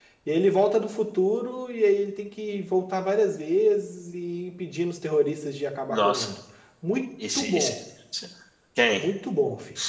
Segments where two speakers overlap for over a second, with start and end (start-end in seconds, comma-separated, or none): none